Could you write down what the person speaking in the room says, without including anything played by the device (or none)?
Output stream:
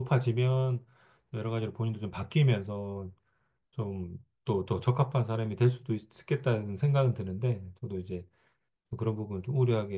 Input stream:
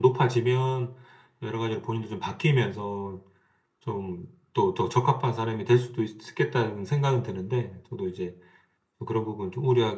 none